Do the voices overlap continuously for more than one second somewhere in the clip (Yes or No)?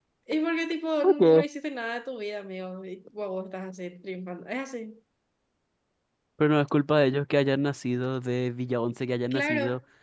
No